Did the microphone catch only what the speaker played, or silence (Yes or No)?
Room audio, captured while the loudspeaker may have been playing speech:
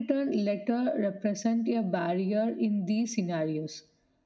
Yes